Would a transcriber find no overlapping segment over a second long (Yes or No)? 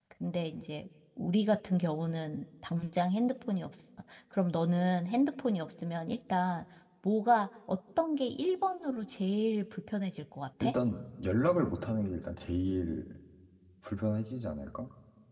Yes